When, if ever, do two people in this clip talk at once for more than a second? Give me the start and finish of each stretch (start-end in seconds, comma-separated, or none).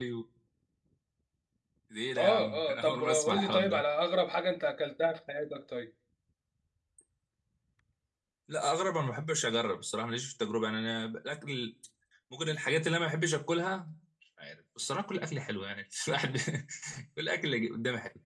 2.2-3.8